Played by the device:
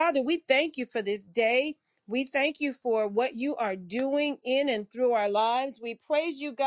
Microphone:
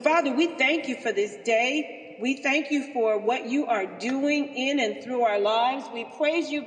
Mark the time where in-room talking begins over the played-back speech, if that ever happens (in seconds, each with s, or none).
none